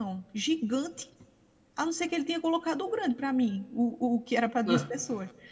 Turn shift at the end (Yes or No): No